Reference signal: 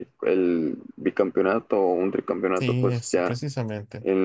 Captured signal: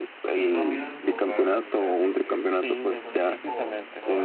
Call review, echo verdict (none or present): present